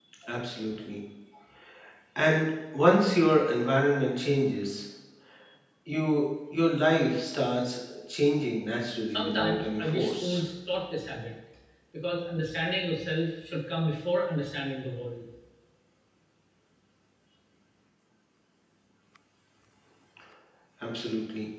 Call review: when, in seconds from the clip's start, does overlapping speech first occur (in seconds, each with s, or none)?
9.1 s